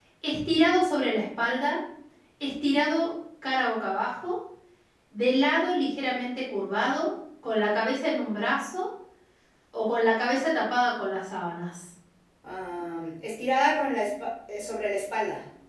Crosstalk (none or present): none